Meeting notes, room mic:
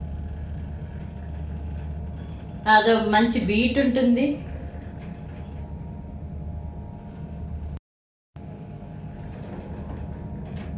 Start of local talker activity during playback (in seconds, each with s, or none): 2.7 s